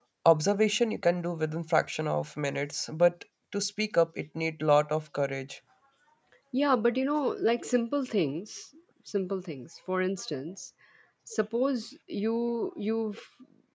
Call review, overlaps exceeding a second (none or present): none